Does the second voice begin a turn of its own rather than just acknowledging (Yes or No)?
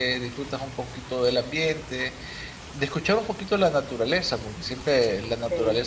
No